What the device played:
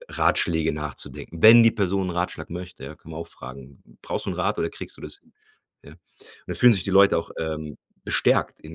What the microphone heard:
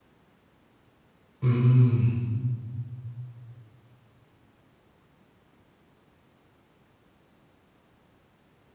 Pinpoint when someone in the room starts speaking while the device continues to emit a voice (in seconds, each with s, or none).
1.4 s